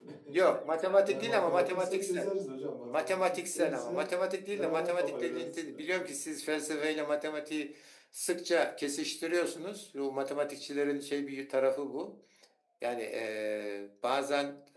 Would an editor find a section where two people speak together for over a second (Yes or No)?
Yes